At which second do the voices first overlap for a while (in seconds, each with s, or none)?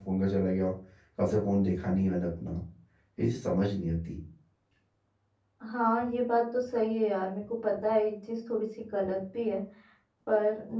none